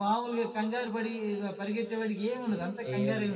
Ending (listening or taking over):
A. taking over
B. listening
A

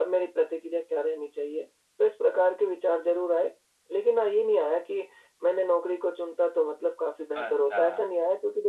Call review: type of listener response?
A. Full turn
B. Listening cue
B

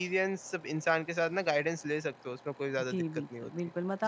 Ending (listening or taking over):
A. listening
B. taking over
B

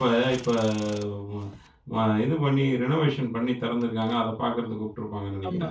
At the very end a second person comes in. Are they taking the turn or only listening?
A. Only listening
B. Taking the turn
B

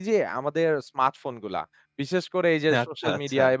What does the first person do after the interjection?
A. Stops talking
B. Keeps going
B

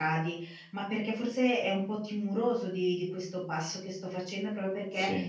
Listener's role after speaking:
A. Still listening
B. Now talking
A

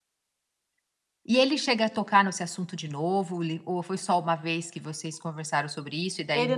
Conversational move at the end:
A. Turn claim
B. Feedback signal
A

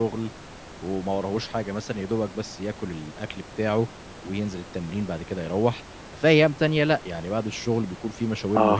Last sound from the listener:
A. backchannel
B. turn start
B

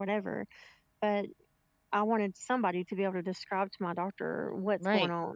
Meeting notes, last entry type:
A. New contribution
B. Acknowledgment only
A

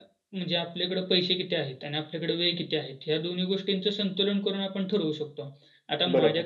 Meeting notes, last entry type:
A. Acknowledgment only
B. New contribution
A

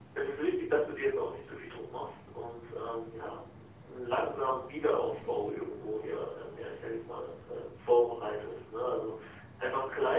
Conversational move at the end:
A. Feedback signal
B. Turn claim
A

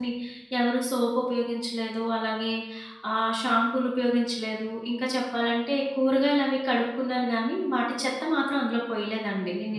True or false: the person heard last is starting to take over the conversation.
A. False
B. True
B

